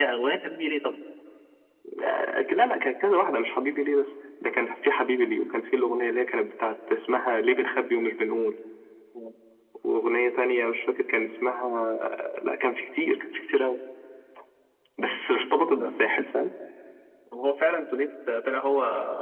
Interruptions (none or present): none